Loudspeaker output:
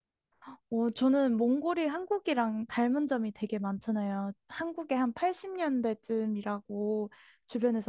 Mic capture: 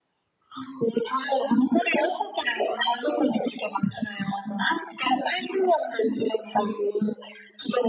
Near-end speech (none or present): none